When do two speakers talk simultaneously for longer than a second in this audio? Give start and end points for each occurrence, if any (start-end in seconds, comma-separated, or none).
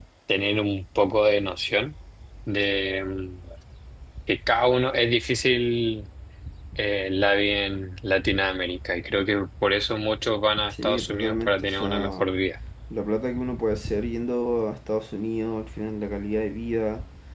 10.7-12.3